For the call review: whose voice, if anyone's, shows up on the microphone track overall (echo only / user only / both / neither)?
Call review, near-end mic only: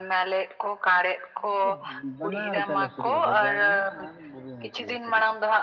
both